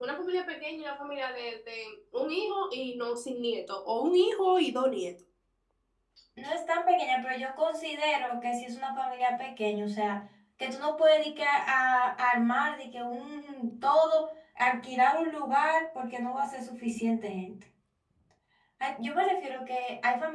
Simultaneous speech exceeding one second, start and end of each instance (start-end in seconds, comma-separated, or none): none